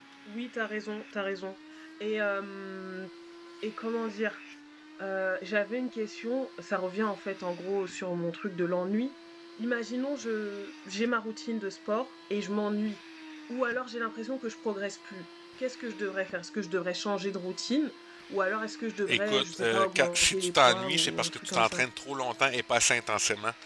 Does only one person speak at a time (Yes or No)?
No